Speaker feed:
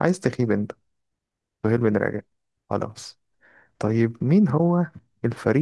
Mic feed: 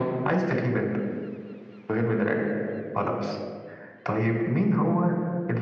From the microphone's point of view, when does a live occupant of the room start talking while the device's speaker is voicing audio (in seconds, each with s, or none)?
none